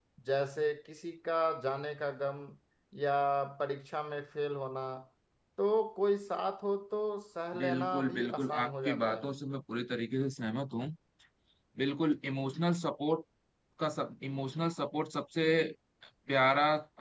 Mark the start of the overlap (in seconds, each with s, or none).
7.5 s